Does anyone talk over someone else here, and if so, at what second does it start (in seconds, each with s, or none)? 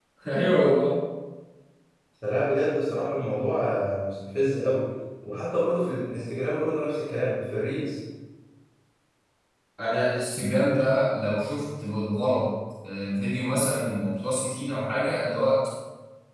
none